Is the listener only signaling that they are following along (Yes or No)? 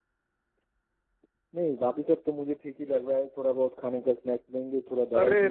No